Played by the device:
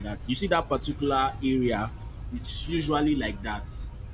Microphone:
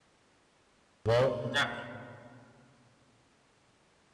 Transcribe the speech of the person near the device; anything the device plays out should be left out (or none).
Well, that